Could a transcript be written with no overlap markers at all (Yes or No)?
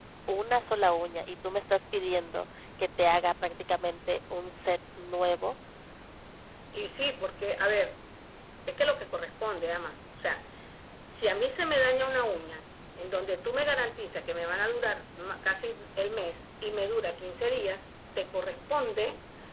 Yes